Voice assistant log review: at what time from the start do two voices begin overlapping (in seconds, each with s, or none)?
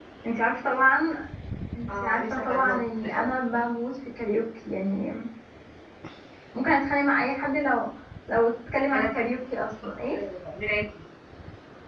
2.0 s